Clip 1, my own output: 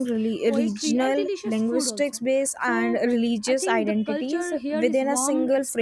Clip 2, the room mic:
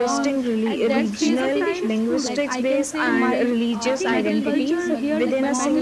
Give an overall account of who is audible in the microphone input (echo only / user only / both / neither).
both